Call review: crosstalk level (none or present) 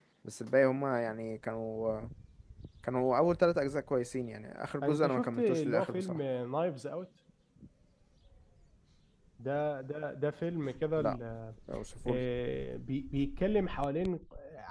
present